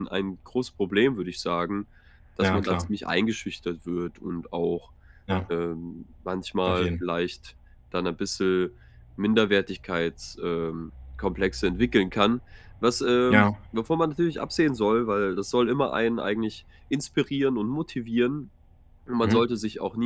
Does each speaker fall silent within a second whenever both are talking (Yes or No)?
Yes